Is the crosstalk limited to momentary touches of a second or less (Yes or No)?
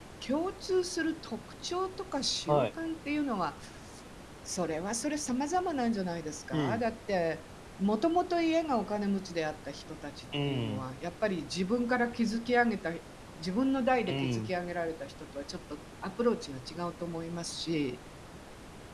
Yes